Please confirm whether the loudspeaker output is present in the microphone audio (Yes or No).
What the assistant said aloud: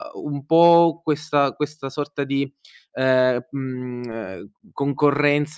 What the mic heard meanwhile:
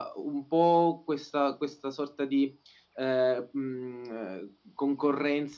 Yes